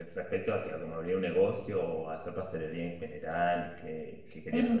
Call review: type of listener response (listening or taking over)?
taking over